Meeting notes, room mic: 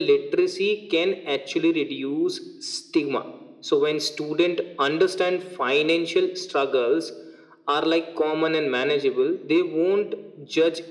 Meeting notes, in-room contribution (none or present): none